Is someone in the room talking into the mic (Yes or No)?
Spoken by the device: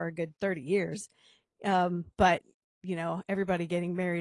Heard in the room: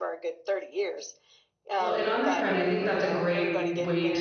Yes